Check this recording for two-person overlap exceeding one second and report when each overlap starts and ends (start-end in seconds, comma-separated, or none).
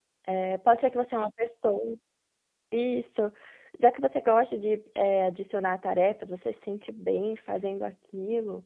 none